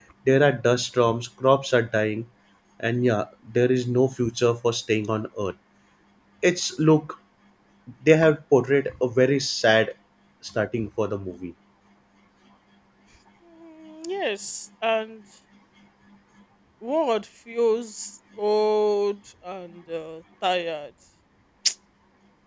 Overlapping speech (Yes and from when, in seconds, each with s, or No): No